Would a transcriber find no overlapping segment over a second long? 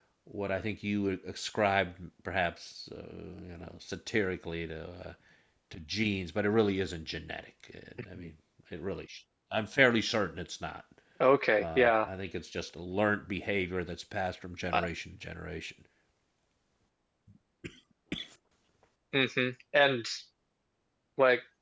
Yes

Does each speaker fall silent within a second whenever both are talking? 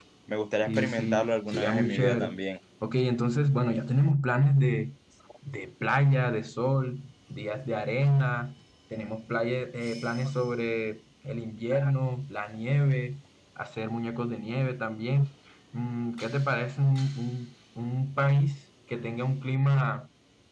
No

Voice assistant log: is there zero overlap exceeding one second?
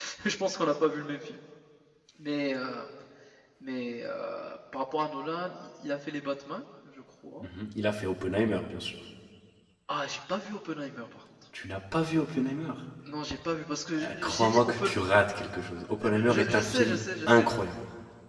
No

